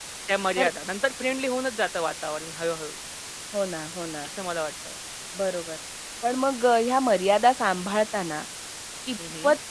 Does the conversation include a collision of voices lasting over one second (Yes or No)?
No